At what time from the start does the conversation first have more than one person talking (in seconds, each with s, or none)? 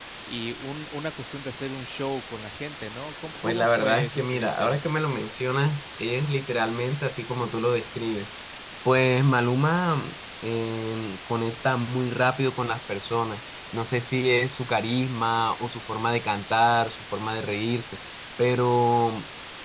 3.4 s